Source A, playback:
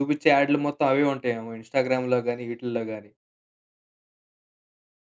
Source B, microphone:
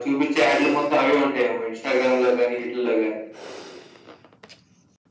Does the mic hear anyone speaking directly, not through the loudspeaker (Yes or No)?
No